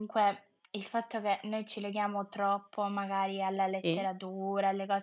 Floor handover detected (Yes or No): No